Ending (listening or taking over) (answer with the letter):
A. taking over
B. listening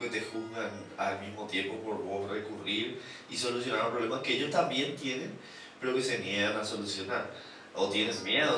B